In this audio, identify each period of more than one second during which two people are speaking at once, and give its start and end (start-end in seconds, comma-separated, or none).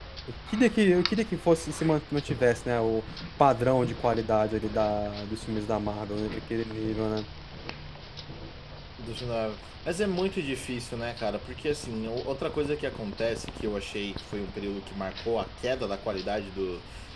none